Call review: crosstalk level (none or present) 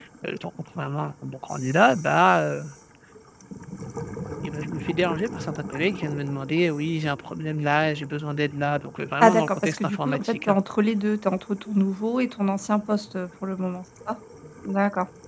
present